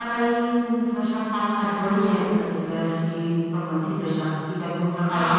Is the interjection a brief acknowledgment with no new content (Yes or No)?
No